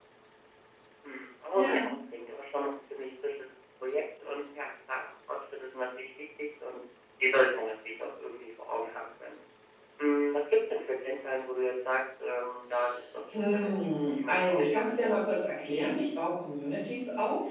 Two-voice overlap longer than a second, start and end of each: 13.3-15.3

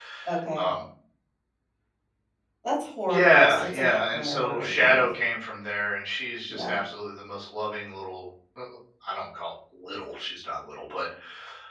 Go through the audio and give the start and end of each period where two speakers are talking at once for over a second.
3.1-5.1

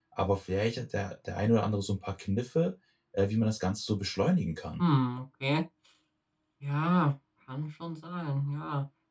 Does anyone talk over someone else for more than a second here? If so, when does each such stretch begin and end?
none

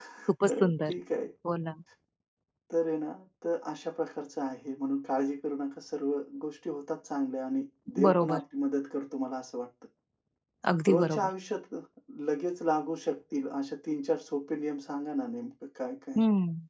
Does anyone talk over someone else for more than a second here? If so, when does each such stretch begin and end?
none

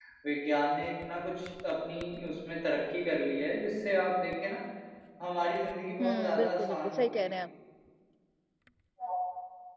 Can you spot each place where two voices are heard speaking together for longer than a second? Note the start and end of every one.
6.0-7.4

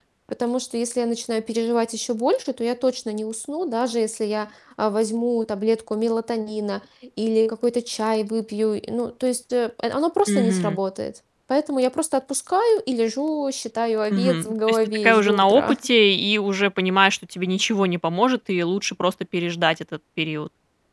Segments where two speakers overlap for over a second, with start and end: 14.1-15.8

